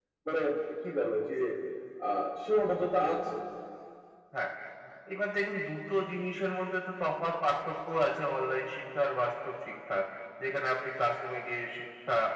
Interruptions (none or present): none